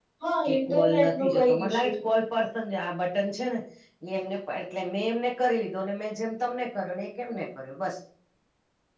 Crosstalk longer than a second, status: present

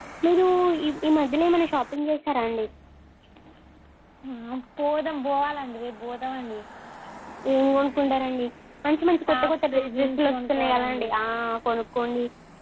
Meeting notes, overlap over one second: present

